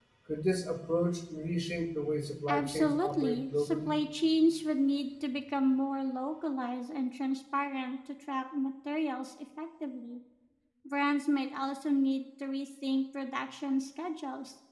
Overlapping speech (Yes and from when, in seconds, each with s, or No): Yes, from 2.5 s